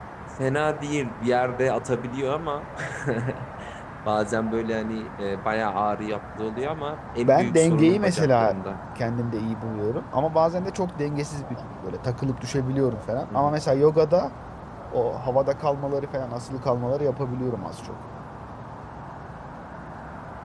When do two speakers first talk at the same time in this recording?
7 s

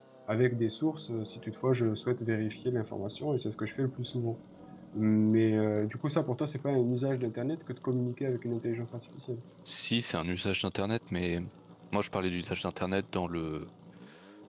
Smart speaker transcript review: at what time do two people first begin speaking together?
none

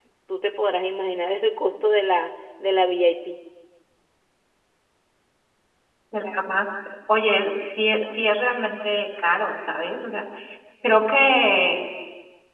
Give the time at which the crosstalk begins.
none

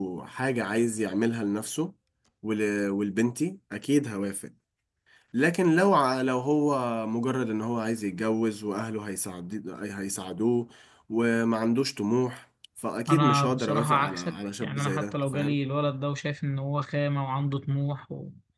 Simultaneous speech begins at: 13 s

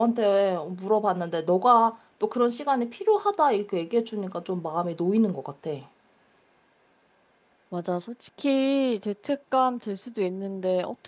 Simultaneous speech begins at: none

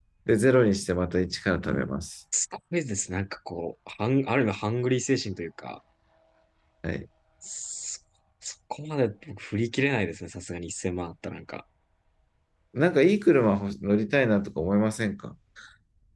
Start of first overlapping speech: none

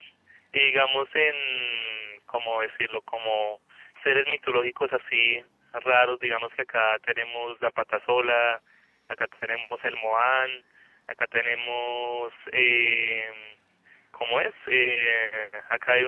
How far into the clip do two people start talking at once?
none

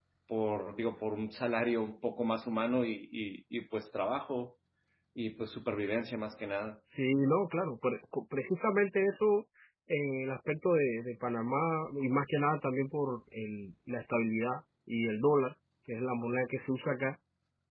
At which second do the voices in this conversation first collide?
none

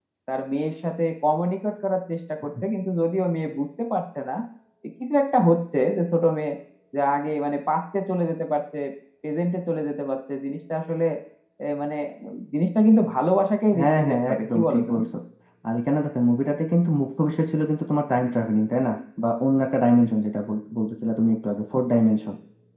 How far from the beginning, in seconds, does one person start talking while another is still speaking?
14 s

